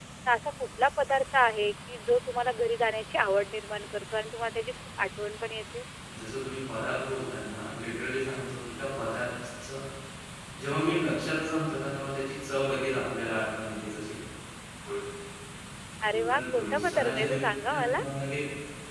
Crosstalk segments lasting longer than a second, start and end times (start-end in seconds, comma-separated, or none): 16.1-18.0